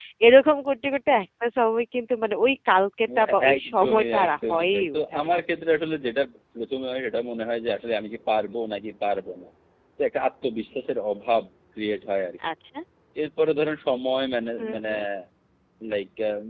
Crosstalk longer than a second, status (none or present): present